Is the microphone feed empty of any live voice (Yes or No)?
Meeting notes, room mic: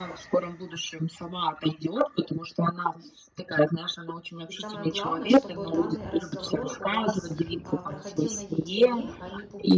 No